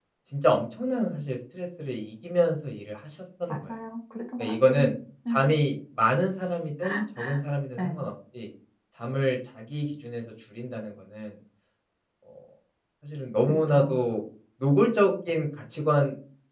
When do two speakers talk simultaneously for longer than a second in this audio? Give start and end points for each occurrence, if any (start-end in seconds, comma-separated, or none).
none